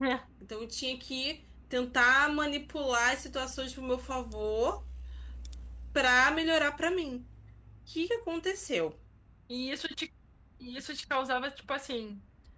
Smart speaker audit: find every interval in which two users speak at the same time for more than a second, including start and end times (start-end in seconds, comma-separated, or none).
none